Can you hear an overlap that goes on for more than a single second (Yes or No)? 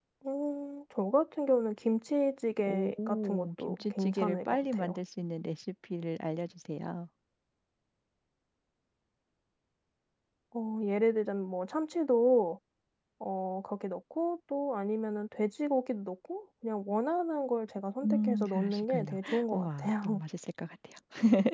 Yes